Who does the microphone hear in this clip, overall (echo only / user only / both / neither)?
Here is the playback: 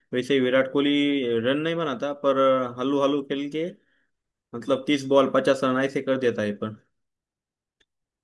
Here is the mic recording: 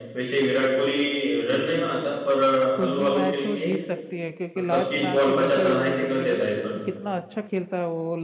both